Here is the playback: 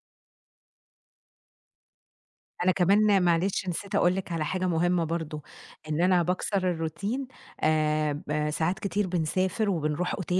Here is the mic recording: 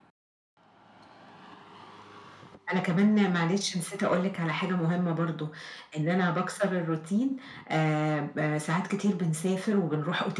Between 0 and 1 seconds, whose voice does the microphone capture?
neither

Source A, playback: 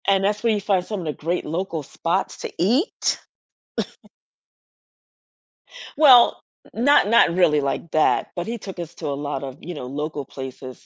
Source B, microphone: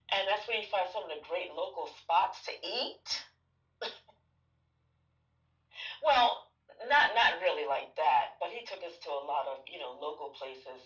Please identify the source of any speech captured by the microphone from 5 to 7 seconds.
echo only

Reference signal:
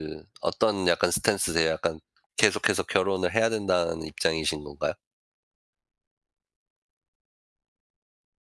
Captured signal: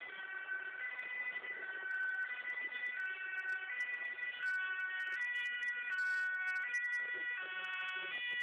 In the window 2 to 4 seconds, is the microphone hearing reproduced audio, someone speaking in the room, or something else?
neither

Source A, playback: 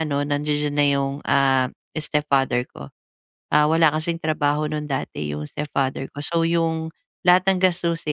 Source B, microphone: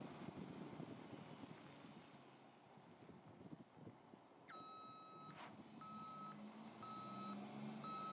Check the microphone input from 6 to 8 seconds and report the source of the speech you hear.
neither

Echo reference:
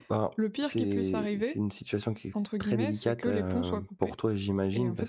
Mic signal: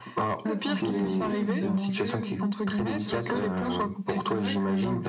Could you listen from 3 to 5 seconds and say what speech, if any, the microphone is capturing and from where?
both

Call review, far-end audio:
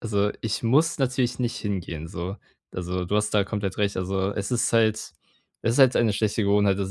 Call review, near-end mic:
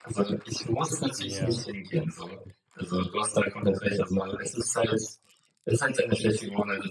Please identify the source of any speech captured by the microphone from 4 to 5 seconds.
echo only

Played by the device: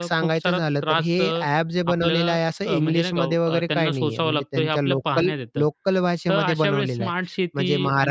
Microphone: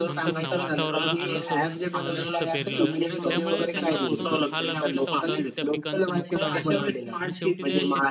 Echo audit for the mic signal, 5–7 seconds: both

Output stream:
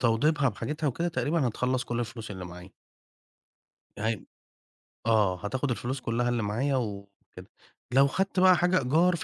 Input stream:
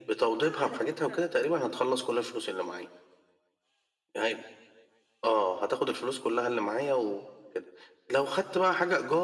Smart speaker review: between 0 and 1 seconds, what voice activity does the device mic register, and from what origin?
both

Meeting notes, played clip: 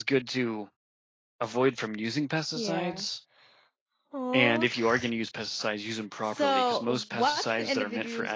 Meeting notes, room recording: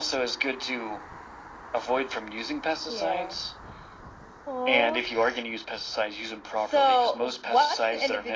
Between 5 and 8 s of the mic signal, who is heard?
echo only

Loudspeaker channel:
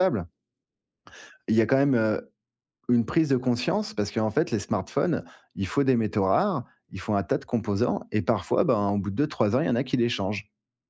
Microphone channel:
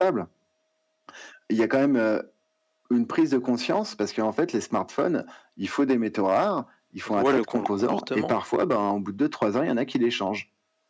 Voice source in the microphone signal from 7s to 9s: both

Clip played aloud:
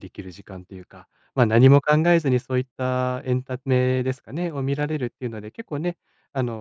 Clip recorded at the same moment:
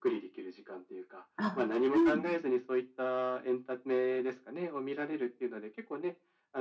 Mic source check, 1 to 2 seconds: both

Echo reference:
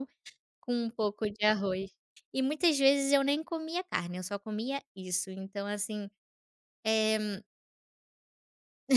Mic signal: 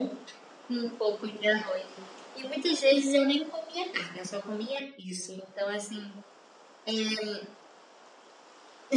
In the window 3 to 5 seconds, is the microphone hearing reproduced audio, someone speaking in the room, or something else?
echo only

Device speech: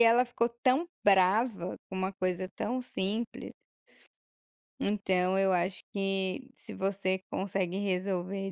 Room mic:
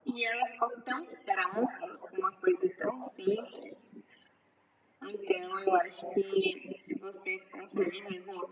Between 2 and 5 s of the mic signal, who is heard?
echo only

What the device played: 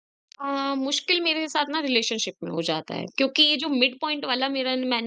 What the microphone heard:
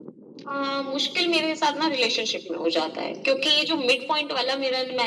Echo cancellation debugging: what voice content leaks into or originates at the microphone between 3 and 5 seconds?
echo only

